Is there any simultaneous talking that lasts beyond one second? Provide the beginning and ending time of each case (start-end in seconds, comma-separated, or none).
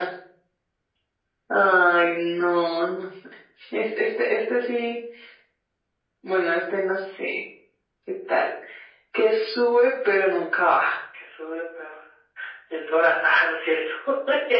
none